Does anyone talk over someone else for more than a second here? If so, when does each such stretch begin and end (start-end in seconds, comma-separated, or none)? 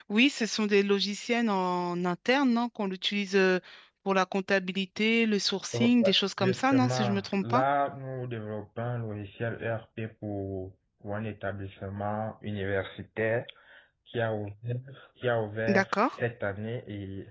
5.7-7.6